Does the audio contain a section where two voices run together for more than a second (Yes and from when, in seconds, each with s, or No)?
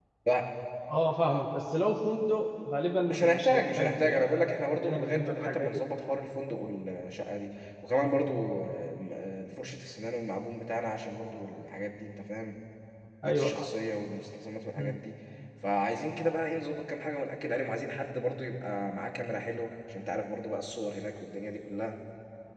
Yes, from 3.1 s